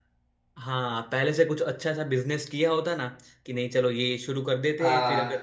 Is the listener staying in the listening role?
Yes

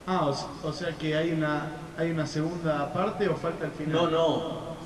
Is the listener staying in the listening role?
No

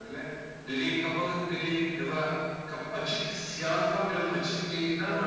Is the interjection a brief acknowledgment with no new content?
No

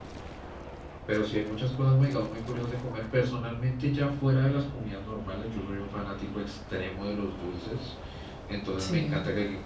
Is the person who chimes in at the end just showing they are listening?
Yes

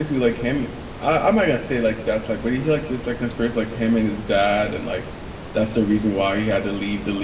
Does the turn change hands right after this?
Yes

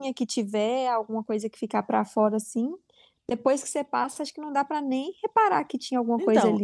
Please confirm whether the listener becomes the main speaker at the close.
Yes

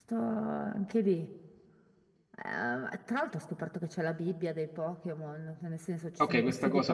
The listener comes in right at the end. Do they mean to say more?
Yes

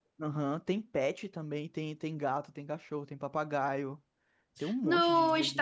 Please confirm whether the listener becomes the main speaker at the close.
Yes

